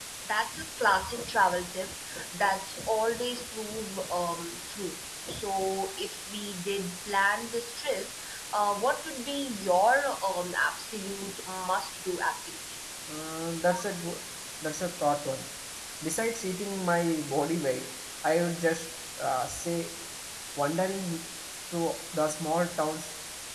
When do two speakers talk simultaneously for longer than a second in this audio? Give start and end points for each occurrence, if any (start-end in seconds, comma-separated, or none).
none